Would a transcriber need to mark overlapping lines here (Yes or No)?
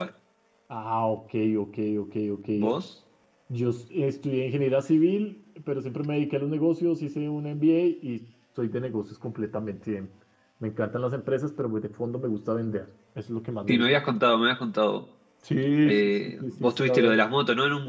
Yes